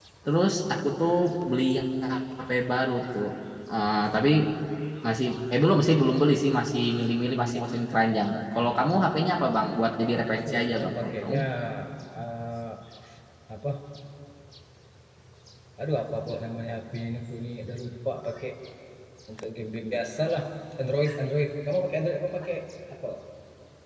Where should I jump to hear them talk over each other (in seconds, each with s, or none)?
9.9 s